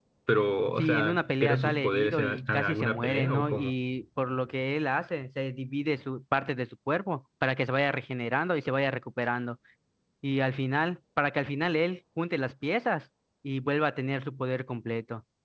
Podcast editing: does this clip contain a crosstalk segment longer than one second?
Yes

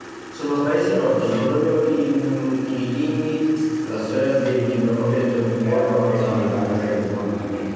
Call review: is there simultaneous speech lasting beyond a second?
Yes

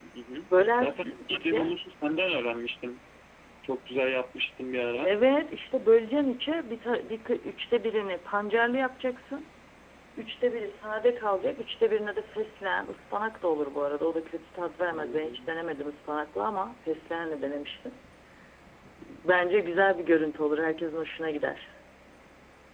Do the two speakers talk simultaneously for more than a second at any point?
Yes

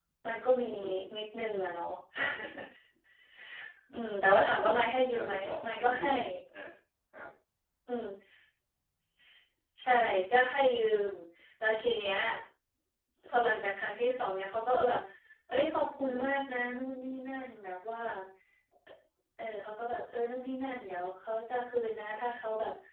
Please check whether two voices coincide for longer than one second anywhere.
Yes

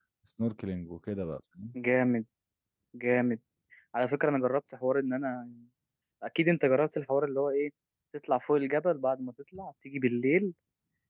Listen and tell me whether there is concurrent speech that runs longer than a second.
No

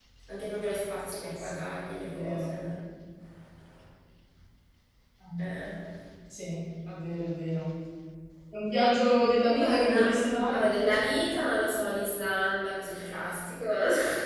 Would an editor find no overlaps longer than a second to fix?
No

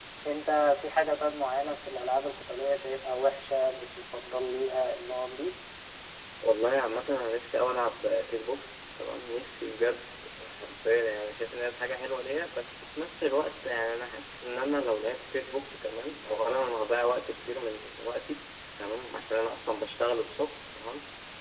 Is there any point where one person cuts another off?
No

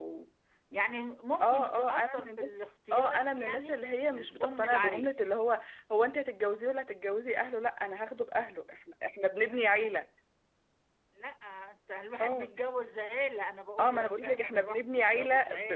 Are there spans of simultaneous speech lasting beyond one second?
Yes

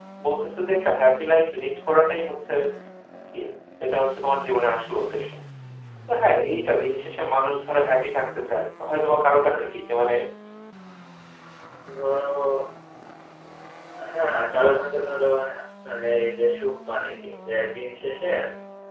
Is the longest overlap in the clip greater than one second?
No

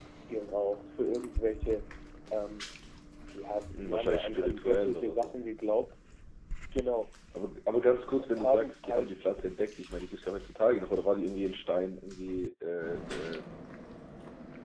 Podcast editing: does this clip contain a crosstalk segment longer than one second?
Yes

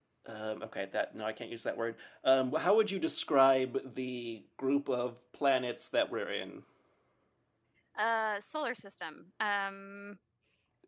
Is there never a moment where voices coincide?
Yes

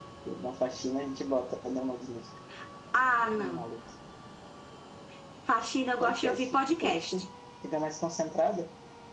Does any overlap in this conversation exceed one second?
Yes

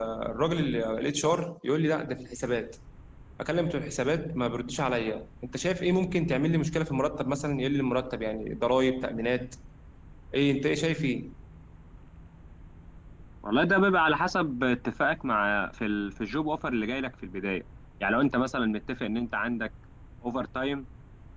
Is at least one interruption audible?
No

